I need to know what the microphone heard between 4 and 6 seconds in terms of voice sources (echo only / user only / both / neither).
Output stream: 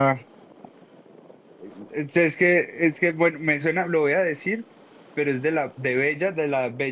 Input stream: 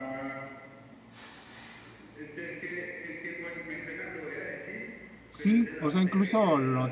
both